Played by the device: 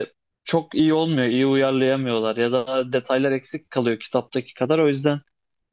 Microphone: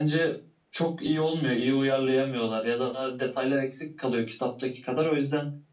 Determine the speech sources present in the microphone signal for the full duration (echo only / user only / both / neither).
echo only